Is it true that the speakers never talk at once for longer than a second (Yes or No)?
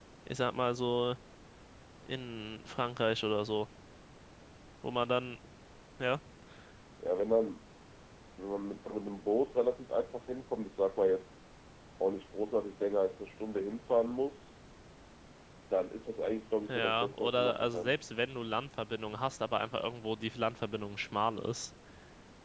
No